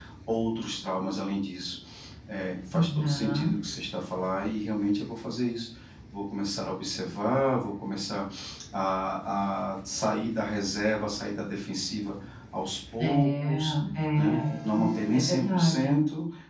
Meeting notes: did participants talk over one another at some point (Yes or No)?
Yes